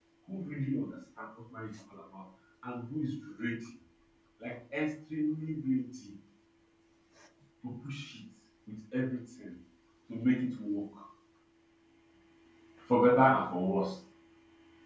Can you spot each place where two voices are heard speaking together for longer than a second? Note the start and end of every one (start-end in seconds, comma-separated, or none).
none